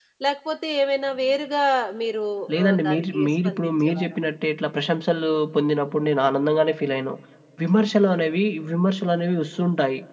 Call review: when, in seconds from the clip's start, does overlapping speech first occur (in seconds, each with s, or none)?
2.7 s